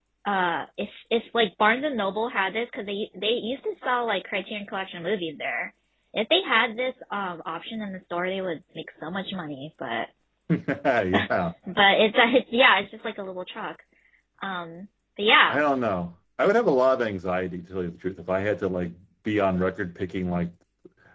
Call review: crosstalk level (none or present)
none